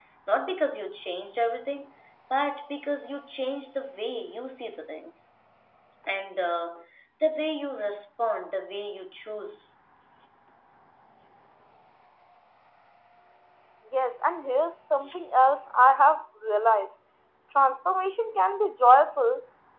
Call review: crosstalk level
none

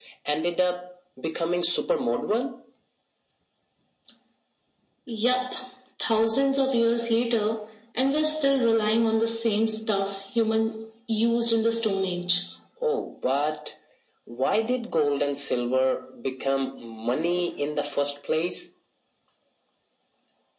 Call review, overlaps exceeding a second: none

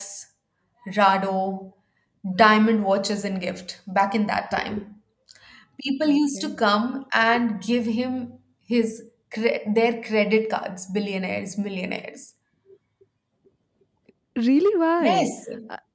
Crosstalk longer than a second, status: none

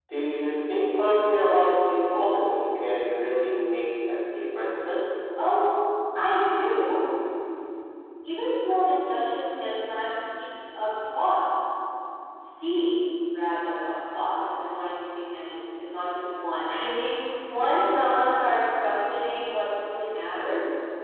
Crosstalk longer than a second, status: none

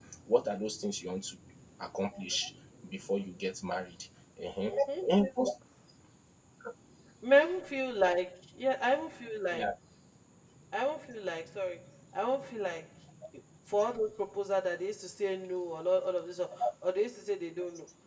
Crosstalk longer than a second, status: none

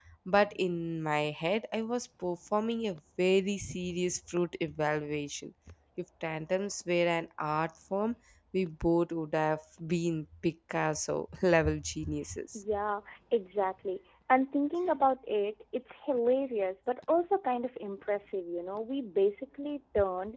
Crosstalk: none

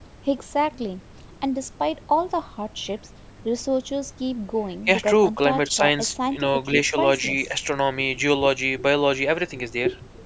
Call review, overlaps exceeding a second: present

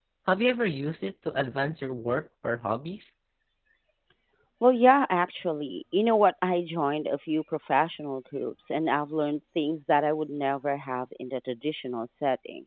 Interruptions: none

